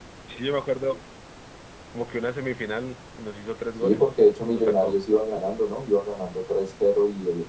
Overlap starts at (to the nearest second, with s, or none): 4 s